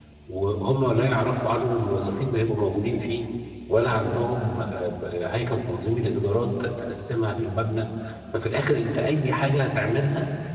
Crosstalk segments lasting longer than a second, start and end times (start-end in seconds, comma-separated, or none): none